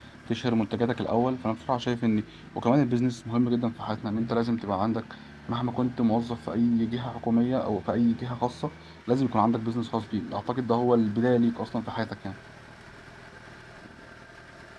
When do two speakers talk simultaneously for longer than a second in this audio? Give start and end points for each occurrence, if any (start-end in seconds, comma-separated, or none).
none